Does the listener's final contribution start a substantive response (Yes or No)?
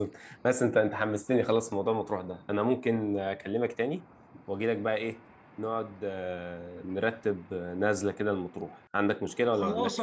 Yes